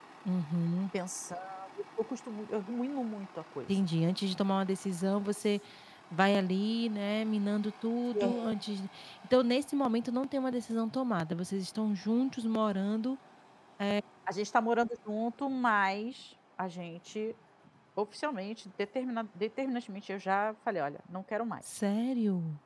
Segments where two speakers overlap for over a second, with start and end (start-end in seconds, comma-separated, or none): none